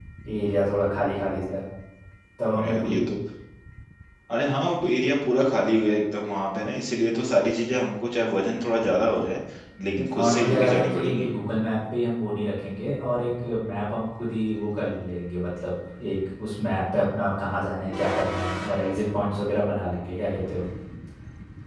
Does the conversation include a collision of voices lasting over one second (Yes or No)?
Yes